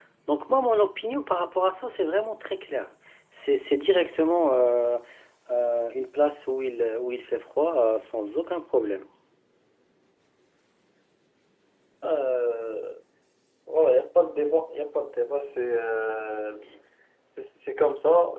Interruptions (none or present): none